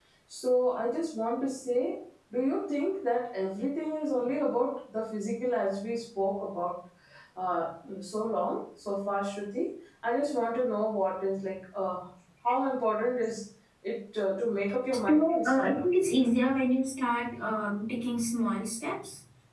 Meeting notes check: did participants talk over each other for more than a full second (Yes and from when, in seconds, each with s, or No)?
Yes, from 15.1 s